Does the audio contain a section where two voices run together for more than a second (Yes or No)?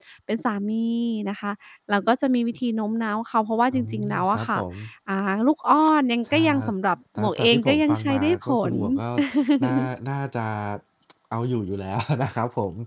Yes